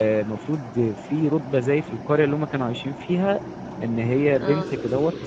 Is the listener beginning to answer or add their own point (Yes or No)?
No